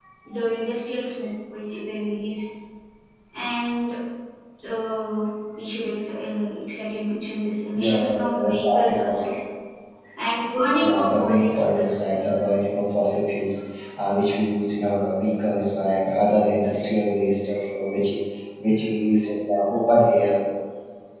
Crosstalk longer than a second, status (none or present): present